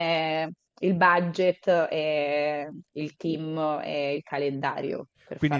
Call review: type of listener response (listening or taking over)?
taking over